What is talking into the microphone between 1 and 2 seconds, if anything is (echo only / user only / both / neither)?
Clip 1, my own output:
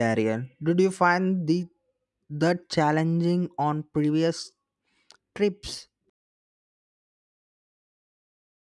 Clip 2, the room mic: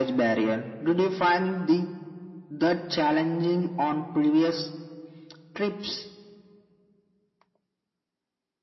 echo only